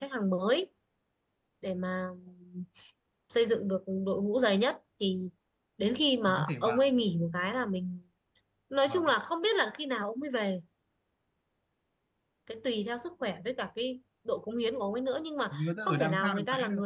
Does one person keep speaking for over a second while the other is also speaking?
Yes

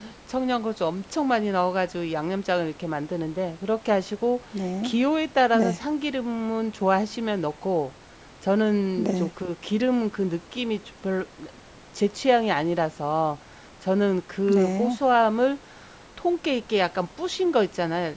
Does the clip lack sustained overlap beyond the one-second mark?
Yes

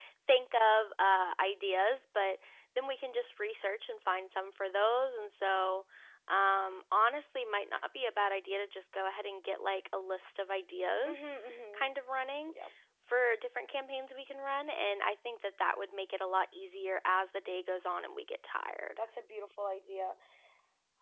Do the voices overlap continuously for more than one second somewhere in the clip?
No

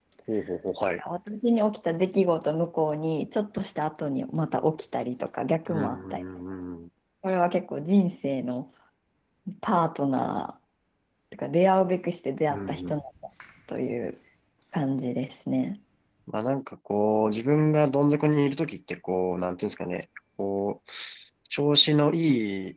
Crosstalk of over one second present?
No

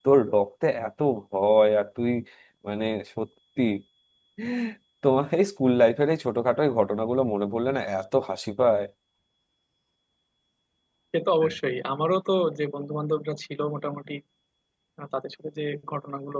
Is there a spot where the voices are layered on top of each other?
No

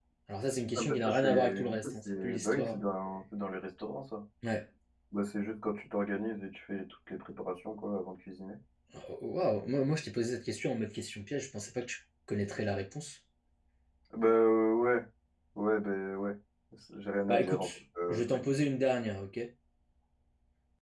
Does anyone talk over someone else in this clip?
Yes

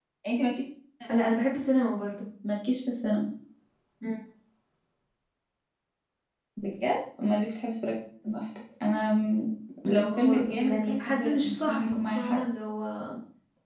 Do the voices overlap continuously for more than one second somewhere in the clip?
Yes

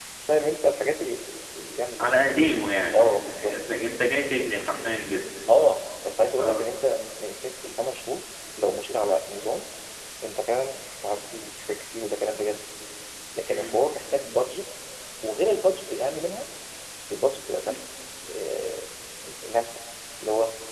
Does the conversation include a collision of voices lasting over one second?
No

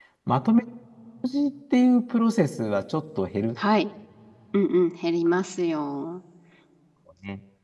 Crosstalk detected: No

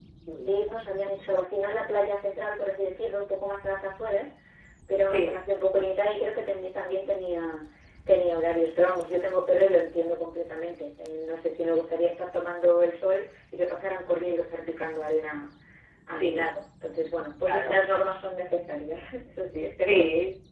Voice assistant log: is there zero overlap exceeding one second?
Yes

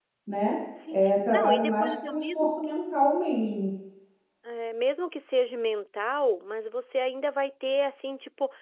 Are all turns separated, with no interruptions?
No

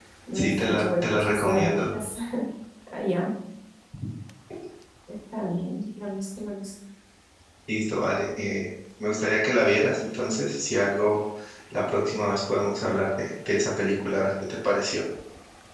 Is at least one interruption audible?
Yes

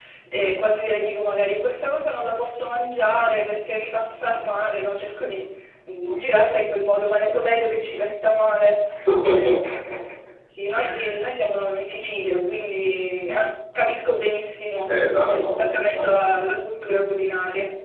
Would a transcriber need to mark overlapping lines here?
Yes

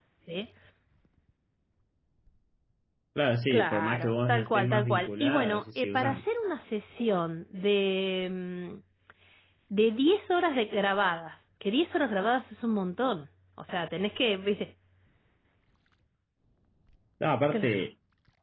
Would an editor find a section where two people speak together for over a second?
Yes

